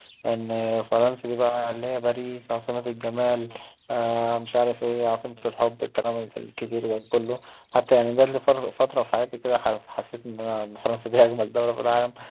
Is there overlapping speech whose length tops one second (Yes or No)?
No